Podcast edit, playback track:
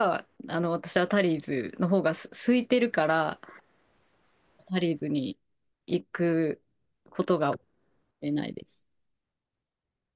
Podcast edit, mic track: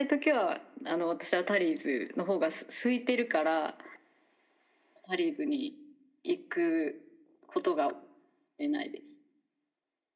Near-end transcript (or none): none